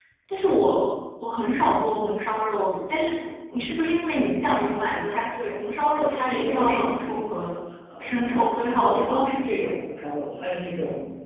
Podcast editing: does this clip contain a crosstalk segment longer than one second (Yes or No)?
Yes